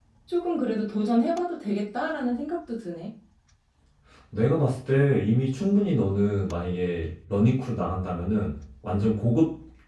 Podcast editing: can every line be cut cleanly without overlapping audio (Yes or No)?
Yes